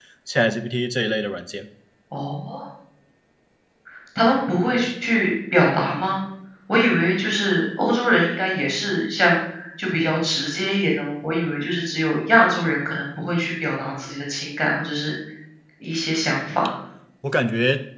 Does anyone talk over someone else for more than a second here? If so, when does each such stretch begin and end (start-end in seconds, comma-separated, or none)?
none